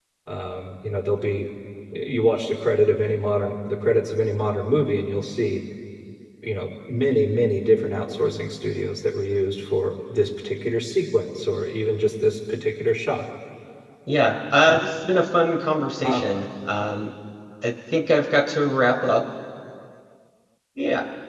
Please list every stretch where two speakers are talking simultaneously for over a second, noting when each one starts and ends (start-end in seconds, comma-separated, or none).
none